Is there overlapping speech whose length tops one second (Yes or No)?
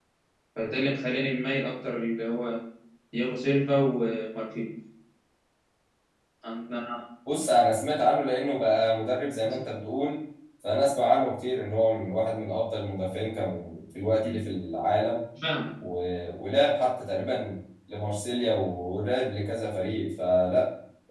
No